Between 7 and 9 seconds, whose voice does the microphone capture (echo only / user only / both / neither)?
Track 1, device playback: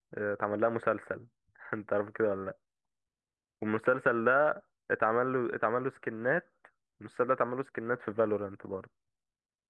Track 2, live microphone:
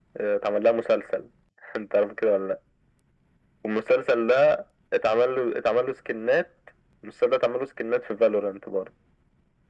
echo only